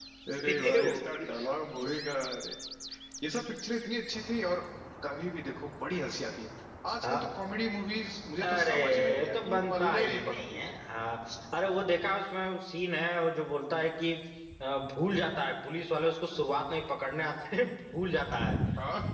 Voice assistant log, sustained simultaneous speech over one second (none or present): present